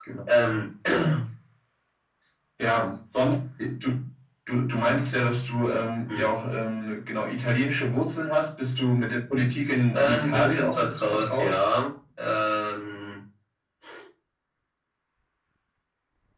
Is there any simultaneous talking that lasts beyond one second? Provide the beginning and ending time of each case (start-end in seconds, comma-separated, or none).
9.9-11.6